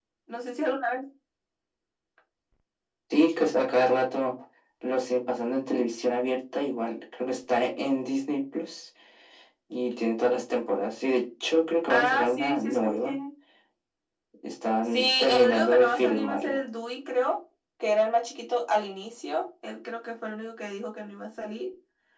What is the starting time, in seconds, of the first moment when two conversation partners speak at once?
11.9 s

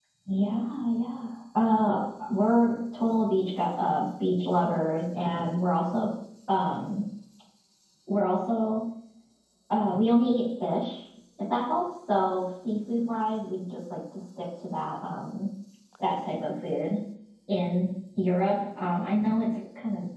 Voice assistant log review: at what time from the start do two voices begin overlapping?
none

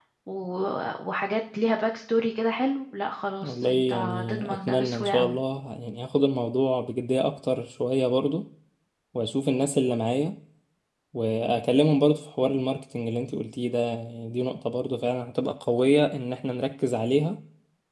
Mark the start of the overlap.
3.4 s

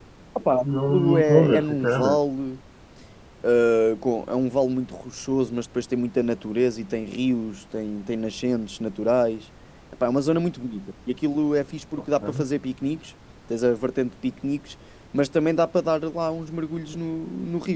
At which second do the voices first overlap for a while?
0.6 s

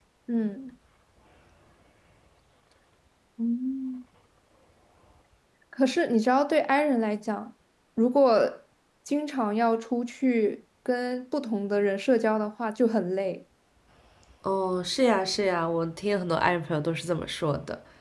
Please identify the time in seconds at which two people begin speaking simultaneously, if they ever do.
none

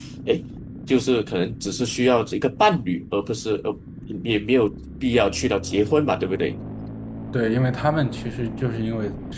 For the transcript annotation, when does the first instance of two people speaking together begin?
none

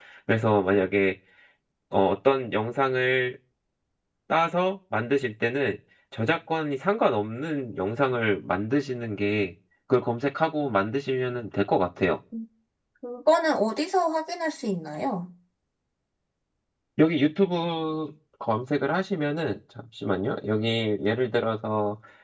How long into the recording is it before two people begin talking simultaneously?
none

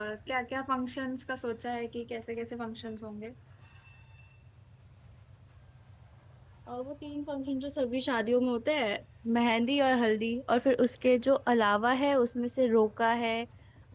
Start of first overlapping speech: none

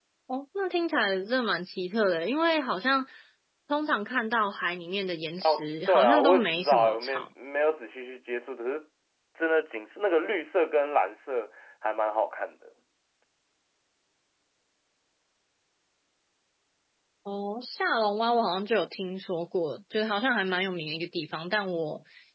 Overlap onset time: 5.4 s

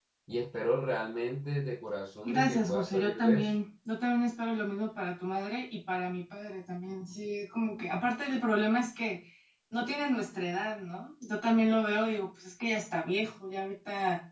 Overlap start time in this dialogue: 2.2 s

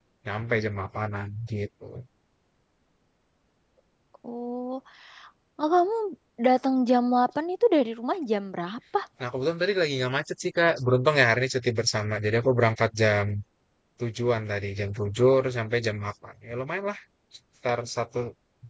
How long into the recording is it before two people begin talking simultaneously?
none

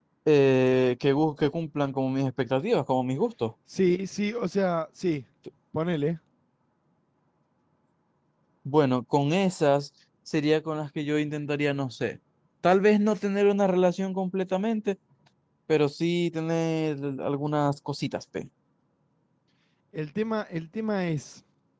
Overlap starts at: none

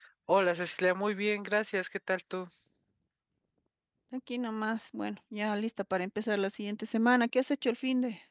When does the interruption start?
none

